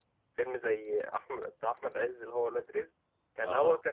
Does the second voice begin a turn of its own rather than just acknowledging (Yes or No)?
No